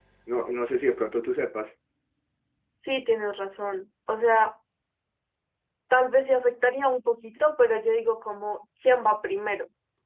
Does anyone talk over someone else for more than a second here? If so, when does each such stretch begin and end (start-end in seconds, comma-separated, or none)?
none